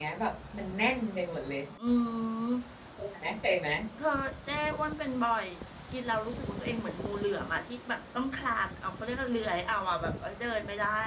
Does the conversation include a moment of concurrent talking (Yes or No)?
No